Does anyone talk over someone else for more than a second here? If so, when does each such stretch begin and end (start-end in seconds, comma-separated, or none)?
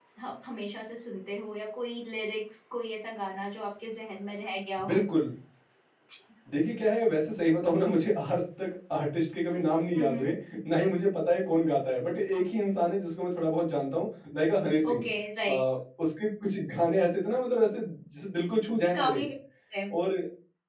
none